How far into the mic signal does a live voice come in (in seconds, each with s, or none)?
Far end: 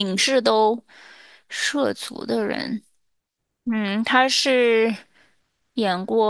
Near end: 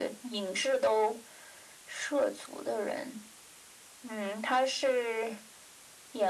none